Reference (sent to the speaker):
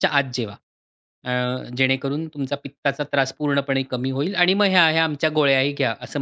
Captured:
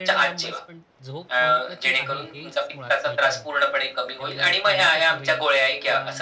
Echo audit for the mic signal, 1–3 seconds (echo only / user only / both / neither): both